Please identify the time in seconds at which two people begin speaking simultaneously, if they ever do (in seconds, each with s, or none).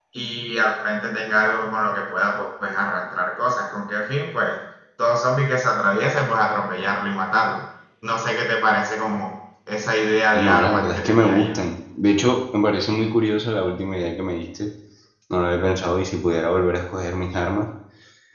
10.3 s